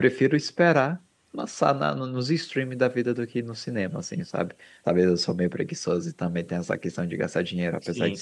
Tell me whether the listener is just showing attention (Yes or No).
No